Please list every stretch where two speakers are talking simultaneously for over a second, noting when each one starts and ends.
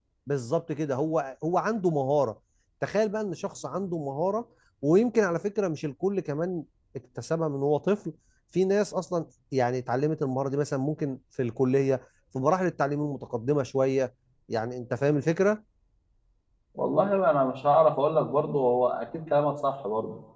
none

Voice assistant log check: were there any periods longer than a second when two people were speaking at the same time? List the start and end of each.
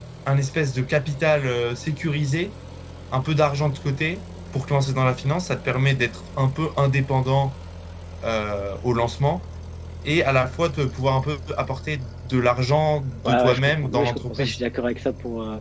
13.2-14.6

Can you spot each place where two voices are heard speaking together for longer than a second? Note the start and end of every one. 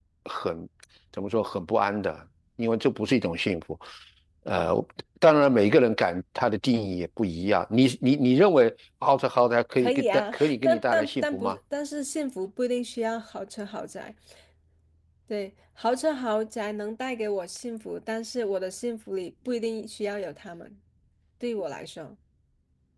9.8-11.6

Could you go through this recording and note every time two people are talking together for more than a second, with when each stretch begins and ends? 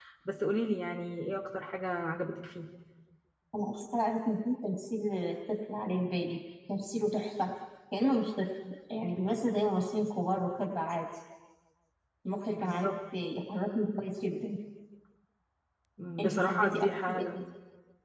16.2-17.4

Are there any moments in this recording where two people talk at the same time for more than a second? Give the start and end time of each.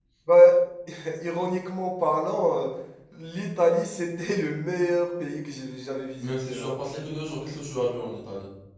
none

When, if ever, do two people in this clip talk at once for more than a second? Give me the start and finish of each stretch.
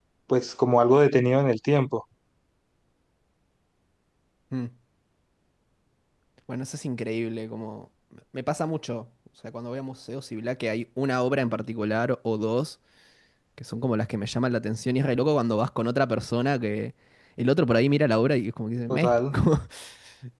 none

